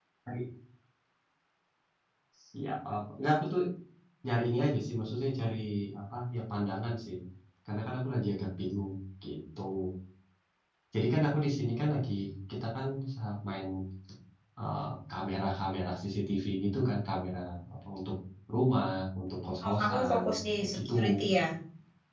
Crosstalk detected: Yes, from 19.6 s

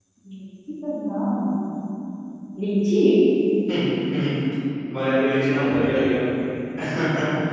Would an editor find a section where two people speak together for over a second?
No

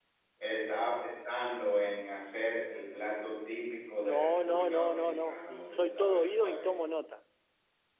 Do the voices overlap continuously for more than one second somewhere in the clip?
Yes, from 4.0 s

